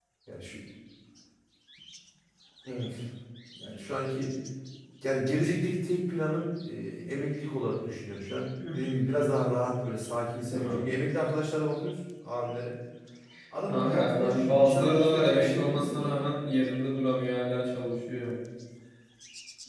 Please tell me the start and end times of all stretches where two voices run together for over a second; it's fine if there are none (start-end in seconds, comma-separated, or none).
13.7-16.0